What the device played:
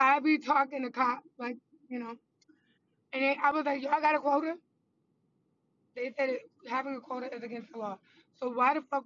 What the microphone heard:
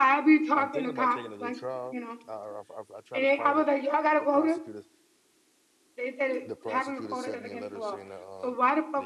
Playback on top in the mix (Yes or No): Yes